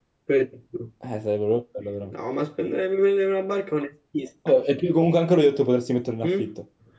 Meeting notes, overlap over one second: none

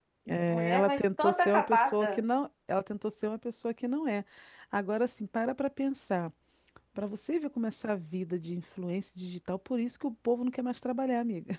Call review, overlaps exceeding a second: present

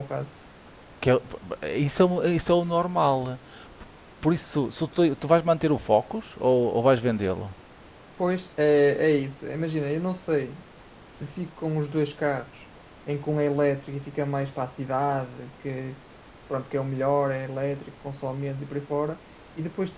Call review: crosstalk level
none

